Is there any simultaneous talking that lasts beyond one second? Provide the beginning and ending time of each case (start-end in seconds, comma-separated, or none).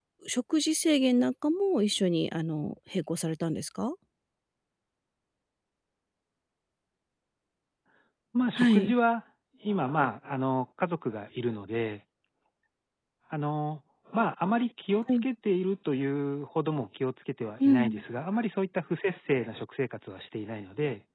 none